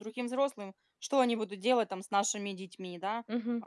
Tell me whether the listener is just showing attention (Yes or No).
No